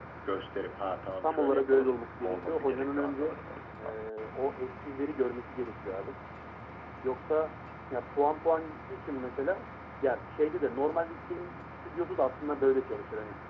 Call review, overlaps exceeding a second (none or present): present